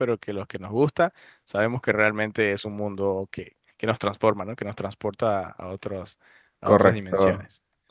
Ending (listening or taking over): taking over